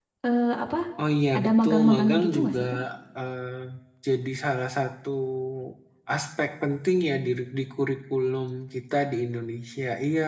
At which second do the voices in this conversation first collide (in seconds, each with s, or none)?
1.3 s